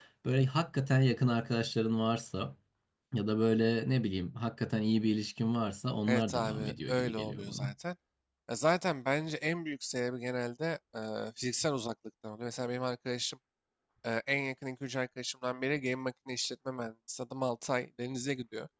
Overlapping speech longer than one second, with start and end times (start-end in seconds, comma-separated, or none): 6.1-7.7